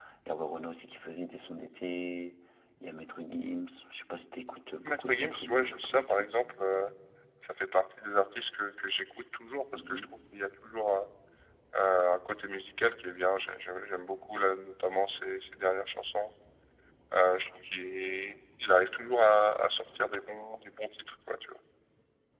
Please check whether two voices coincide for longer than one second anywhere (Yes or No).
Yes